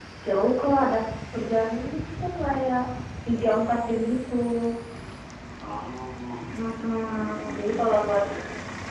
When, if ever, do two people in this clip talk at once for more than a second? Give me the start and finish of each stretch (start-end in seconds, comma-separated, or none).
6.5-8.2